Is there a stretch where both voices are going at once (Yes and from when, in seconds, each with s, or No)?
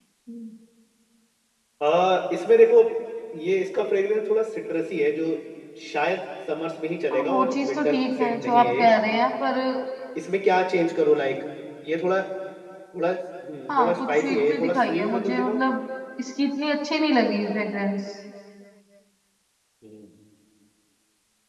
Yes, from 7.1 s